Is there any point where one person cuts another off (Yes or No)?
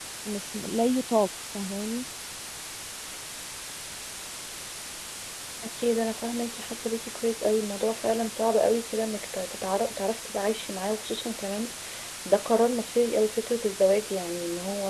No